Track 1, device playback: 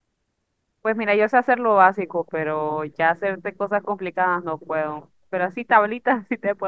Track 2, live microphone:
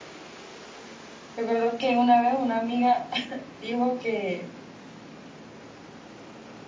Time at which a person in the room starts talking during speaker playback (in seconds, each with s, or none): 1.4 s